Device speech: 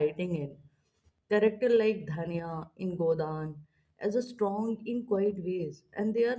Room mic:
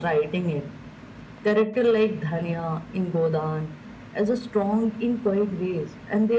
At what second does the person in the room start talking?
none

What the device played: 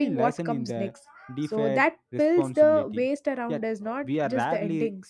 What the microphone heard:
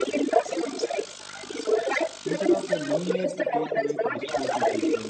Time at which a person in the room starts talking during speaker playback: 2.2 s

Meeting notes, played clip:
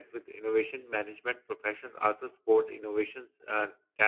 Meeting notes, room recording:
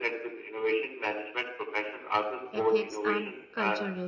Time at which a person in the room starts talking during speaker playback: 2.5 s

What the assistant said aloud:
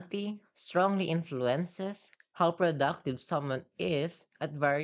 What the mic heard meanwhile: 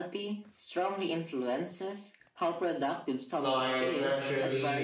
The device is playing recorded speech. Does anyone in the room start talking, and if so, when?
3.3 s

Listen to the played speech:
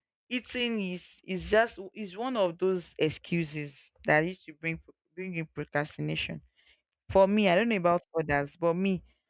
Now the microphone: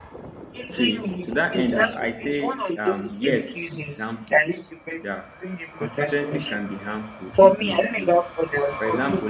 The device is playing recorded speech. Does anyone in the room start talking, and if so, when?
0.7 s

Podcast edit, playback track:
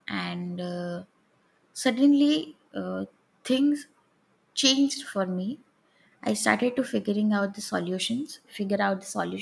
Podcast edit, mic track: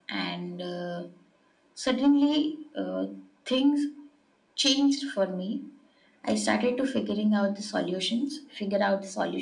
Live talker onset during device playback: none

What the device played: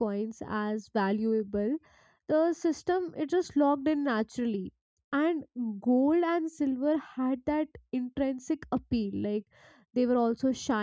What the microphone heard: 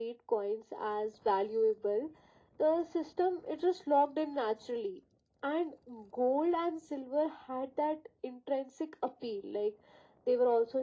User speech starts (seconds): none

